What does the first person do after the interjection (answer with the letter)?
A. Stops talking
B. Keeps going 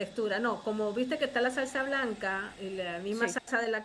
B